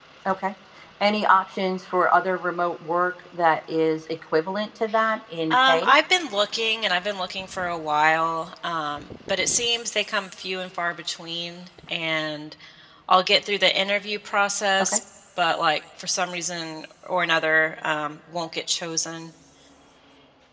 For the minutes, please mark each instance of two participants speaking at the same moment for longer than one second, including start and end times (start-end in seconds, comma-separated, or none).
none